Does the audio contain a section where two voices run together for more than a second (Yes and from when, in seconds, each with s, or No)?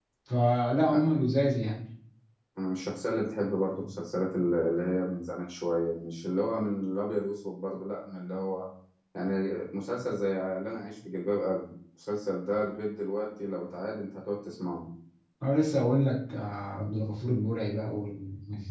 No